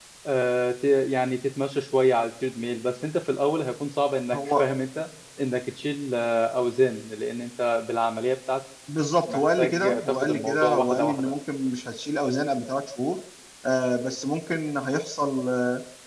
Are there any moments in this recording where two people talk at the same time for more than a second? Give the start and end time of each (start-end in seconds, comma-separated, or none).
9.3-11.3